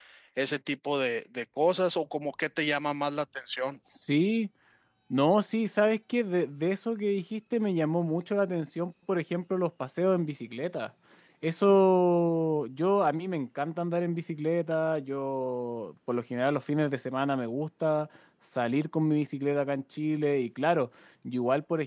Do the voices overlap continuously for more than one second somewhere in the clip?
No

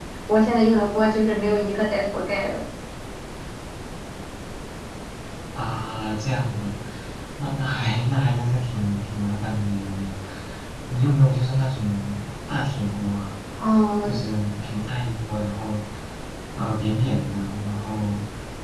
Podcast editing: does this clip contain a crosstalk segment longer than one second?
No

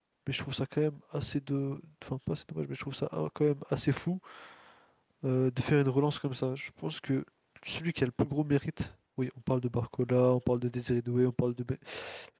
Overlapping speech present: No

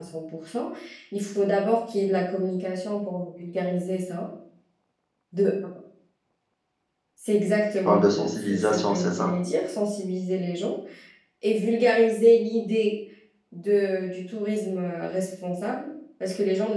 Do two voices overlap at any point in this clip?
Yes, from 7.8 s

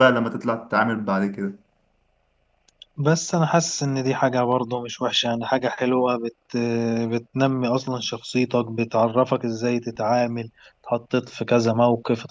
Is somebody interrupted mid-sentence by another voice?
No

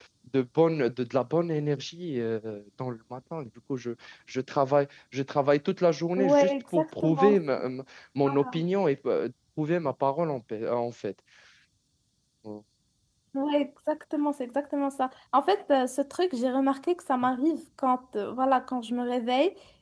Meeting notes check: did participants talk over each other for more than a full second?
Yes, from 6.2 s

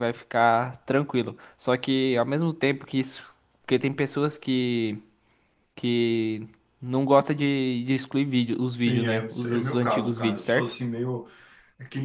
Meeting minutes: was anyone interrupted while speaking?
Yes, from 8.8 s

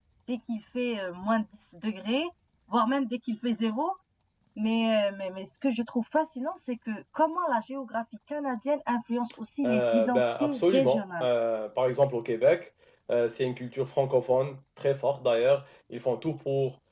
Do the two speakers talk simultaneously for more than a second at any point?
Yes, from 9.6 s

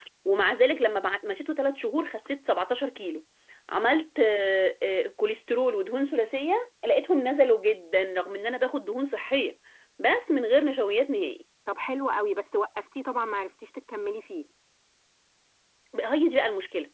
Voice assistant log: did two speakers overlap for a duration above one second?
No

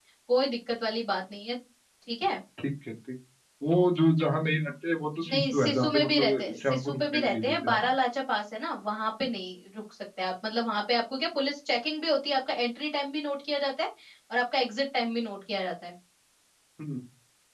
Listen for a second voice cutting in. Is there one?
Yes, from 5.2 s

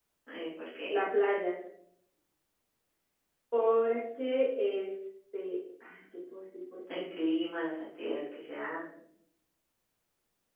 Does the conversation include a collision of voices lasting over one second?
No

